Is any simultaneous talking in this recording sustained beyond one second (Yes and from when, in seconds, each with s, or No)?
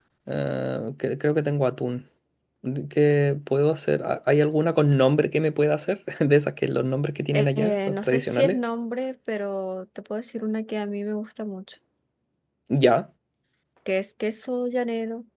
Yes, from 7.3 s